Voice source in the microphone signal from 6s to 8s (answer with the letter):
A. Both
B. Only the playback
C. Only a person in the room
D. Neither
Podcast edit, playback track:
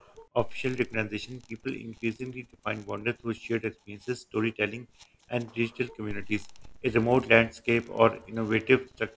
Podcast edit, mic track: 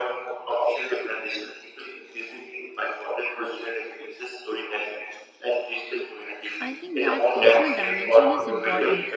A